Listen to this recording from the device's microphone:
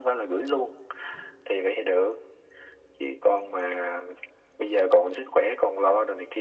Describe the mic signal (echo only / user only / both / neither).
echo only